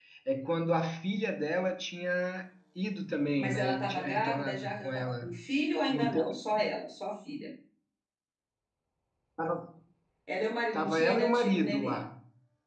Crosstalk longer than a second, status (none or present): present